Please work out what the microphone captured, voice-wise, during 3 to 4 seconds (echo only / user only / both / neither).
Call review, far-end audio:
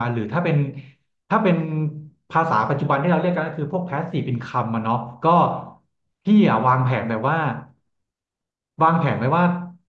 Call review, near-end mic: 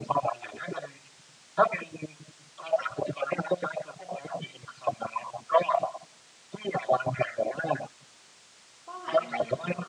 echo only